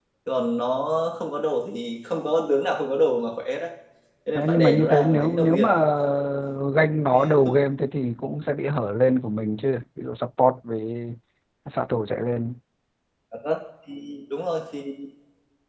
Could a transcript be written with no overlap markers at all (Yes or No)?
No